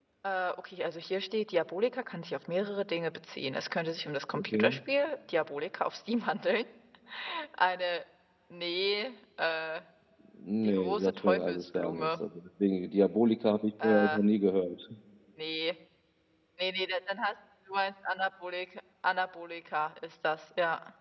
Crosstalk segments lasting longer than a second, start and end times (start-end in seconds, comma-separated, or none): 10.6-12.2